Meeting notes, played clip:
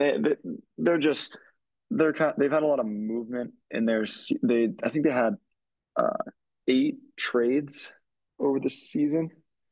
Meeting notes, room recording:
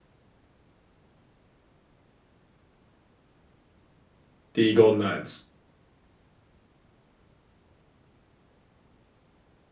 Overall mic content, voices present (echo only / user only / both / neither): user only